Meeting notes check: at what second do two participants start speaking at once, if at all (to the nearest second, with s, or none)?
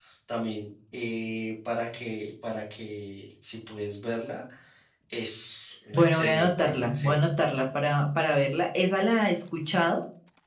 6 s